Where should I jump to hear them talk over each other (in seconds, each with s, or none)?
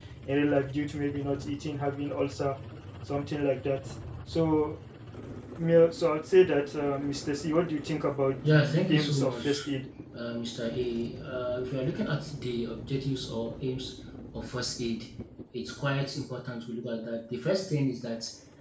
8.4 s